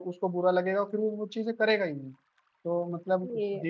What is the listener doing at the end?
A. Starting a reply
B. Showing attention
B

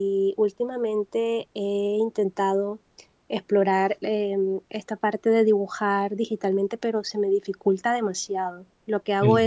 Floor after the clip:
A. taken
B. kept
B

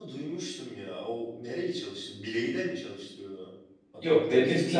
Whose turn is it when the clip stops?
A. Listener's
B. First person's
A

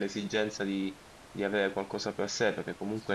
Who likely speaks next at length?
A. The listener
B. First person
B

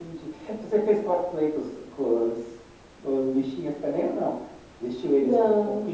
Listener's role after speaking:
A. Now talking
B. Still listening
B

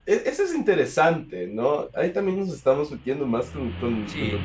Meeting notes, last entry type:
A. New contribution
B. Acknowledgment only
A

